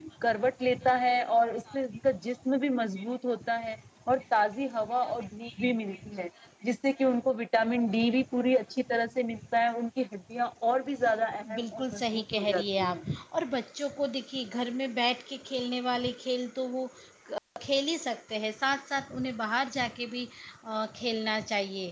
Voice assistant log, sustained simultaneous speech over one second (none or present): present